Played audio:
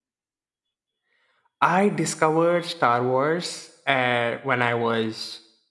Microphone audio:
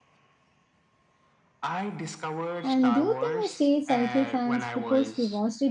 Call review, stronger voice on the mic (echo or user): user